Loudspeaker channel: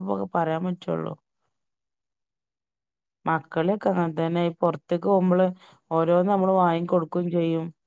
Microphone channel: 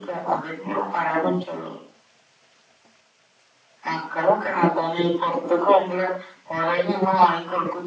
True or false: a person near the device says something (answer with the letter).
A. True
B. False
B